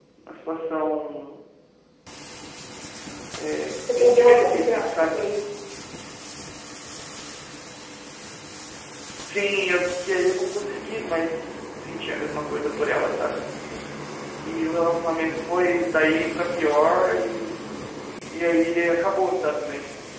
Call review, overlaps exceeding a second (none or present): present